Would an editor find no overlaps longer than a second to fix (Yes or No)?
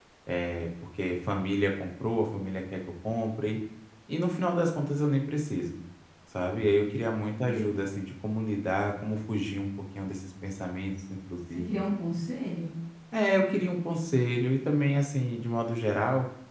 Yes